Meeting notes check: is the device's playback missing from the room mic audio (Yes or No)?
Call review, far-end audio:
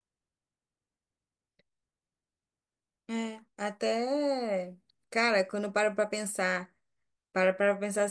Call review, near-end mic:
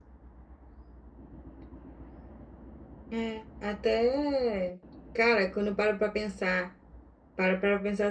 No